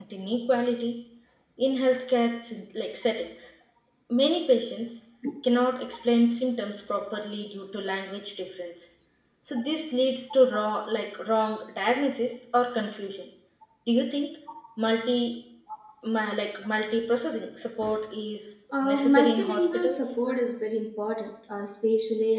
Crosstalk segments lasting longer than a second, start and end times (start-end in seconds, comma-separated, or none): 18.8-20.2